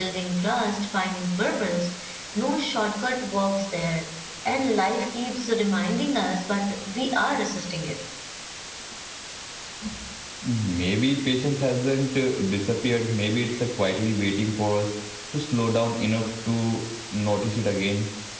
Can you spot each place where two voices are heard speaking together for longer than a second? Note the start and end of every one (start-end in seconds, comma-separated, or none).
none